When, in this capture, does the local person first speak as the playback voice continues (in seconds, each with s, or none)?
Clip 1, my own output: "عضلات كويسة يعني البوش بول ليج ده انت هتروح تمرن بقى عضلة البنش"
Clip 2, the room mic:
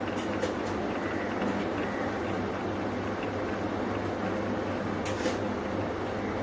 none